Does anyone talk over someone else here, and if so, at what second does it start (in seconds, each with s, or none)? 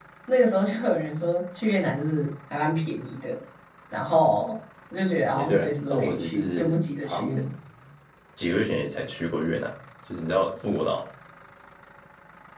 5.3 s